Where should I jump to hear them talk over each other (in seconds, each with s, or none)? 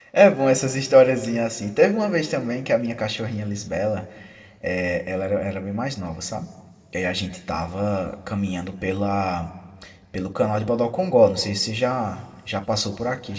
none